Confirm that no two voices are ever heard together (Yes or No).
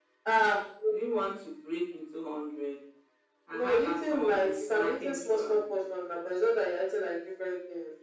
No